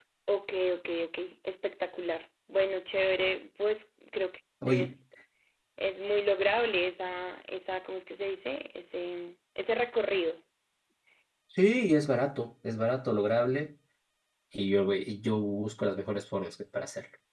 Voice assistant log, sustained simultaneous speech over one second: none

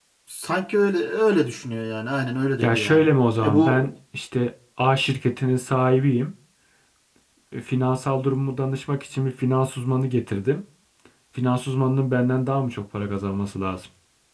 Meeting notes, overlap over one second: none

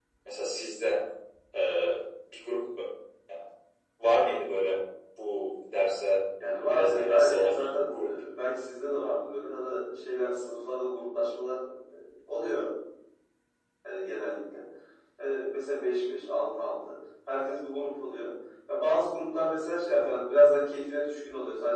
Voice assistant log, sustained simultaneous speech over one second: present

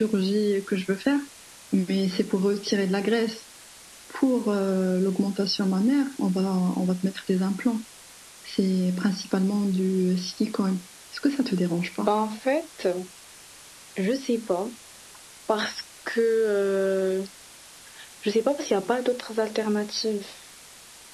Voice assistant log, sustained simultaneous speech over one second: none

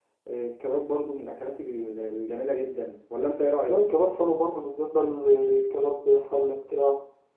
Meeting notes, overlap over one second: none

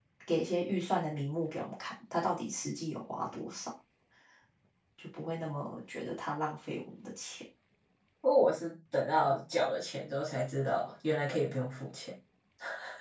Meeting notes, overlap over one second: none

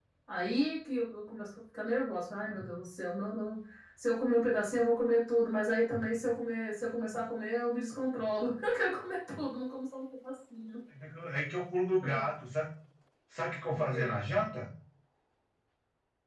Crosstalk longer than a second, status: none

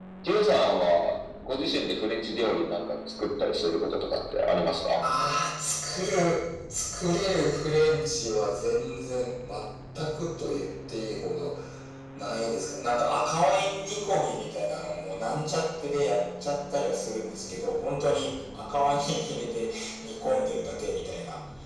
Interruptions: none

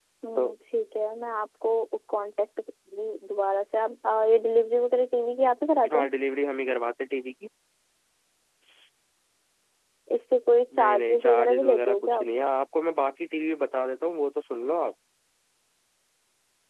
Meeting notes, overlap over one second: present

